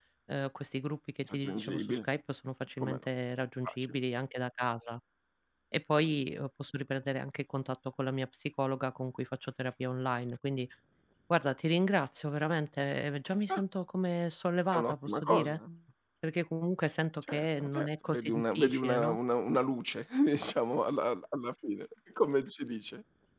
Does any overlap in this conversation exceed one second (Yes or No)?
Yes